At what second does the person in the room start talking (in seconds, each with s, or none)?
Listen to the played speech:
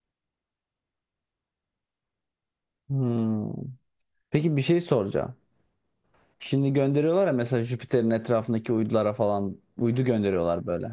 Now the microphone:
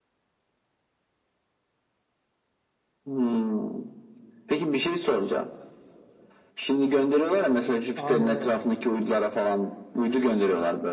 8.0 s